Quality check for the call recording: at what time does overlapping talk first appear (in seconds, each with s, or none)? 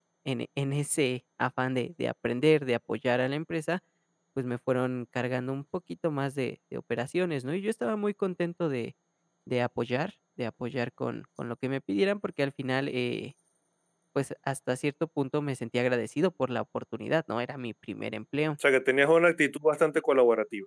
none